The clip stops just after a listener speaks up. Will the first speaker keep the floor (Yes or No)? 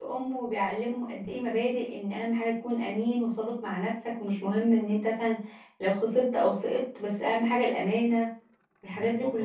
No